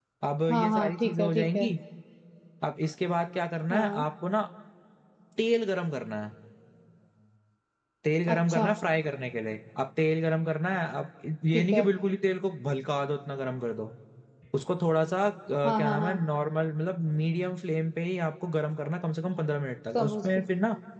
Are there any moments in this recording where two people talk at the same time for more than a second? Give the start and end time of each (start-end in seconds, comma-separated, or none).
0.5-1.7